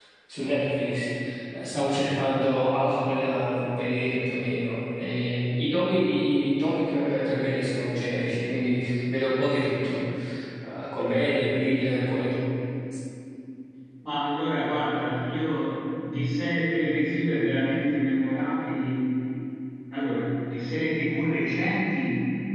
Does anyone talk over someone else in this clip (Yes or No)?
No